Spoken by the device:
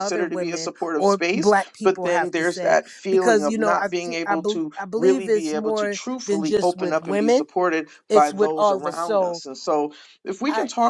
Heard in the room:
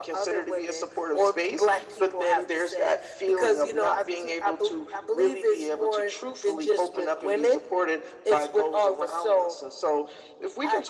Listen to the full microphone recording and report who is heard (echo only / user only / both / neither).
echo only